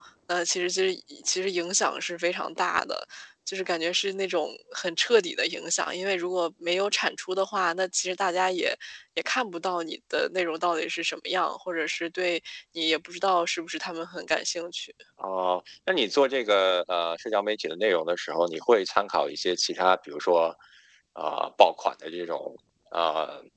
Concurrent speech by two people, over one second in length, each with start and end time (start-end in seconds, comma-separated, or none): none